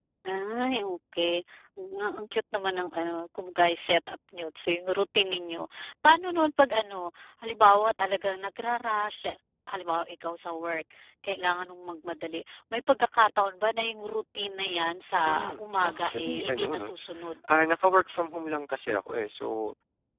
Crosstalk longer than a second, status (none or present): present